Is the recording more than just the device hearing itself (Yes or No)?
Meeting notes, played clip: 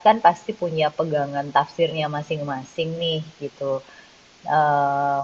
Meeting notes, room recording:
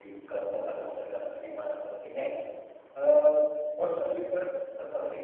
Yes